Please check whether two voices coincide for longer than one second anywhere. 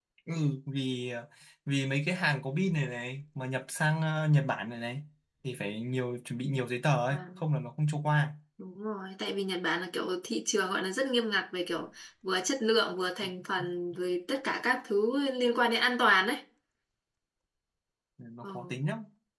No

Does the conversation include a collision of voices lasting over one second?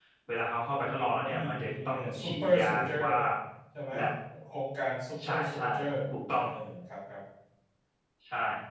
Yes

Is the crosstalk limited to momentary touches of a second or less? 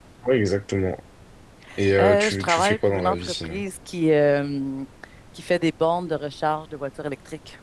No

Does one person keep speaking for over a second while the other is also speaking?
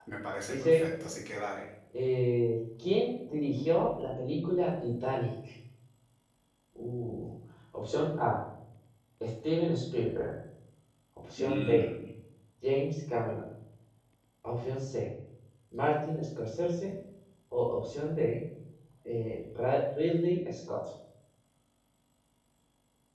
No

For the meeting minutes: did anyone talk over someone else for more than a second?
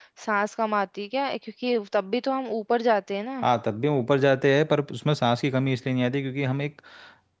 No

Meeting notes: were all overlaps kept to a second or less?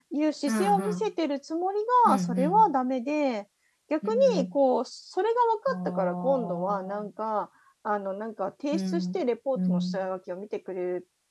No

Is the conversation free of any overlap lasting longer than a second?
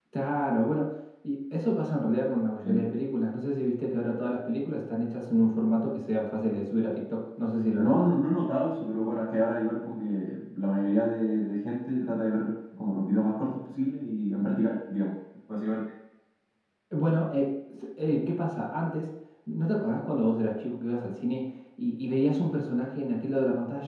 Yes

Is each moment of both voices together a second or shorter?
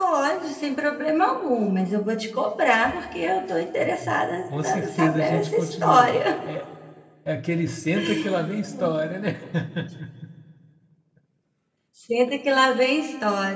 No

